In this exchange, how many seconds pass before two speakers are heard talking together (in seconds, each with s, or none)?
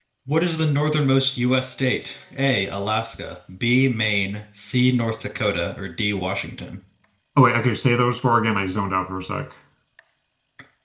none